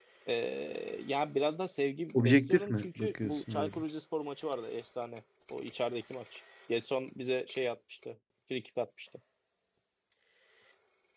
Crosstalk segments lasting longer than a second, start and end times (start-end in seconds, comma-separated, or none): 2.1-3.8